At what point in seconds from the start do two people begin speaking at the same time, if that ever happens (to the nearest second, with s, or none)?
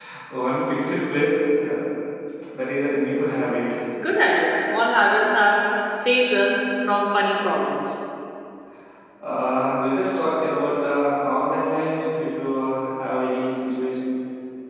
none